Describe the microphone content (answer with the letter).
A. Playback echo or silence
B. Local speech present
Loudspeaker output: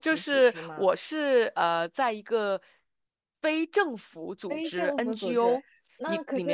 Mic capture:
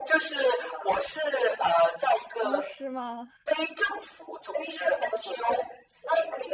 B